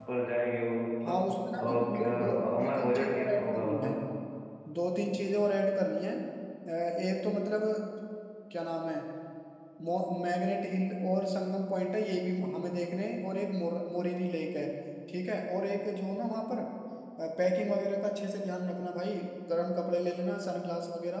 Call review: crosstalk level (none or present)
present